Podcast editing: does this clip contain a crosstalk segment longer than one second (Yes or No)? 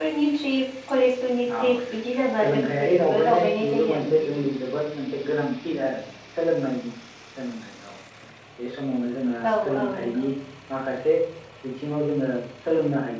Yes